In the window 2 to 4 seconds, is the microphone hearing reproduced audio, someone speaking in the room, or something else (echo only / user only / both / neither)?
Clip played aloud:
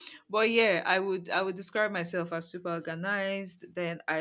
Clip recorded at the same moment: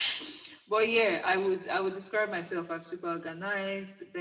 echo only